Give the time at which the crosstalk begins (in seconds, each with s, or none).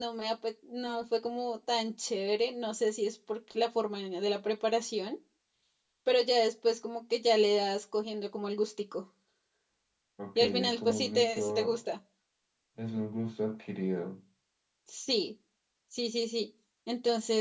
10.3 s